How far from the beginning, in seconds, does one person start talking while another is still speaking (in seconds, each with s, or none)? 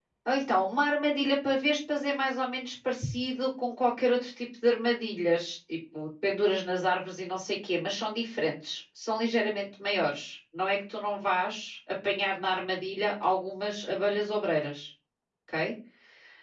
none